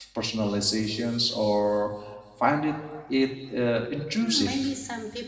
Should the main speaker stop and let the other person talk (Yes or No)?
Yes